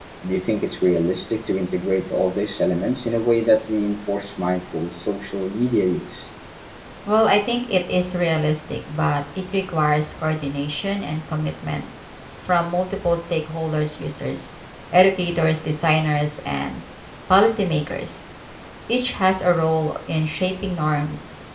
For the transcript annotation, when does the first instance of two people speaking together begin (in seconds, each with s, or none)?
none